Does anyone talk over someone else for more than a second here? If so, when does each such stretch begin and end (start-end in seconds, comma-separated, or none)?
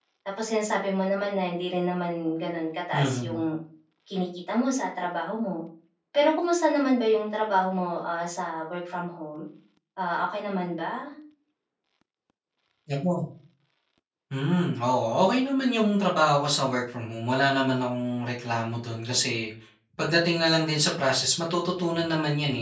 none